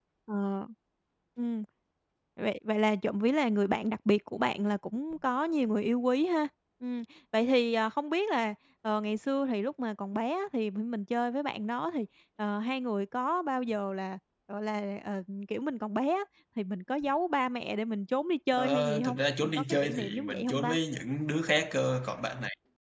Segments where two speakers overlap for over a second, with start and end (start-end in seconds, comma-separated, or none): 18.5-20.8